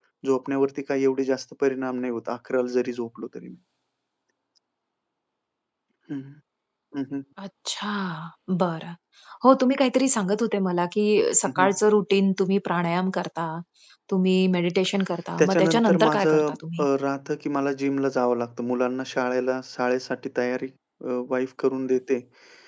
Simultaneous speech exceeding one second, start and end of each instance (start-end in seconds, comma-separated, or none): 15.4-16.9